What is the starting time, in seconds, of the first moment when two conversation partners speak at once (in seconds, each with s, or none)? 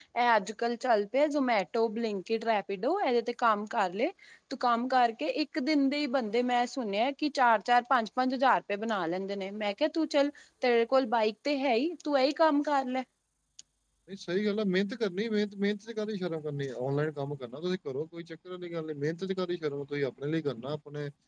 none